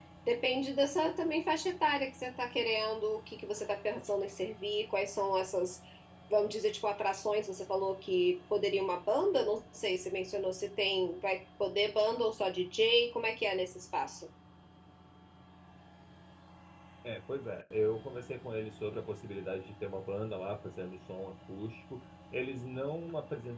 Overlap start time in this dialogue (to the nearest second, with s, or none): none